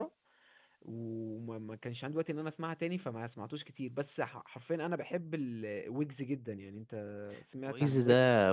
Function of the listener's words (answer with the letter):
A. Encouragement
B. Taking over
B